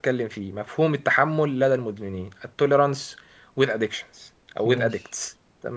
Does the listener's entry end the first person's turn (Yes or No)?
No